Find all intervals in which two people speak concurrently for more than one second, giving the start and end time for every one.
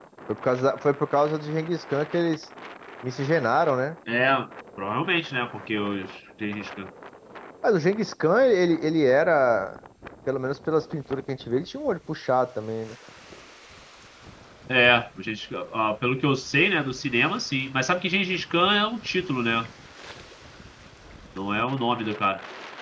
none

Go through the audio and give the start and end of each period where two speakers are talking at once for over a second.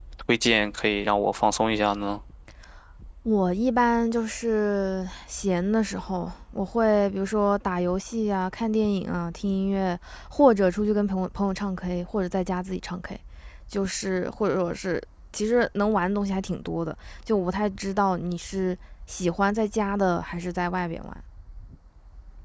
none

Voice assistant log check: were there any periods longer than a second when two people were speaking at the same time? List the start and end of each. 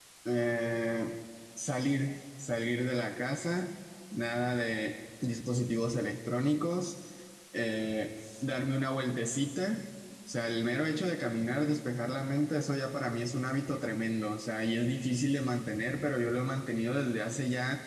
none

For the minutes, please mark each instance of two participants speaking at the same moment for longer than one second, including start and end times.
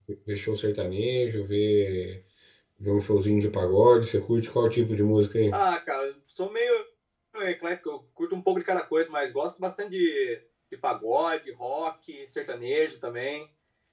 none

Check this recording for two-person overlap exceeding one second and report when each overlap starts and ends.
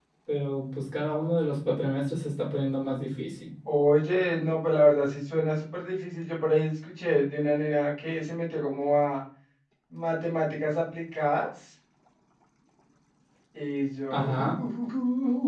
none

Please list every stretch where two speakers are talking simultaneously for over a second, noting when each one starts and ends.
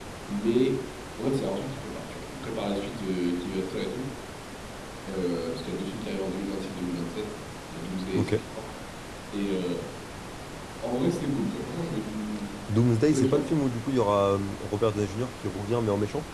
none

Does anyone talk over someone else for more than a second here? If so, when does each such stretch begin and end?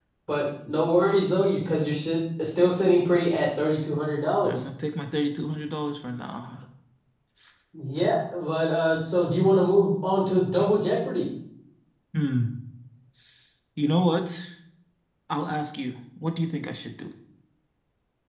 none

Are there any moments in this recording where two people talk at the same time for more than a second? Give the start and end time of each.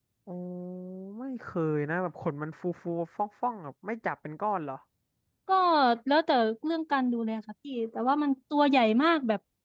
none

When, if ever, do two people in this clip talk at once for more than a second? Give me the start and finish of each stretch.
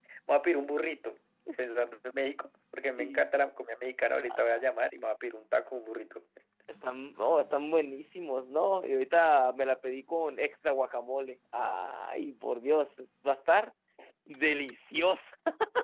none

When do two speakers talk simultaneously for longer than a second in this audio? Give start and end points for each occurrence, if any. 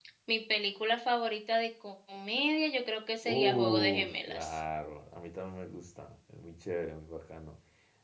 3.2-4.6

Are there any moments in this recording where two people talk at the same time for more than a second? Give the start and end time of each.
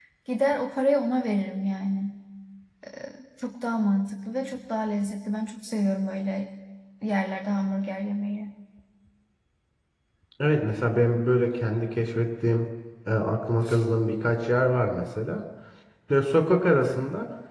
none

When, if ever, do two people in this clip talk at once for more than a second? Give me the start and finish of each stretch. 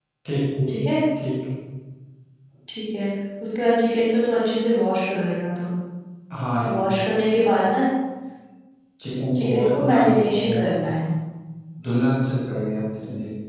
9.3-10.6

